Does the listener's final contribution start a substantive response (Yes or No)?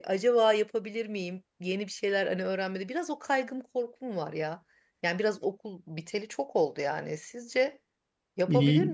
Yes